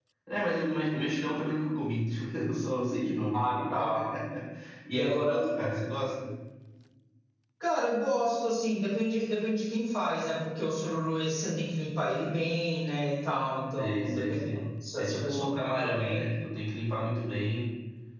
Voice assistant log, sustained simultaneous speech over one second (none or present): present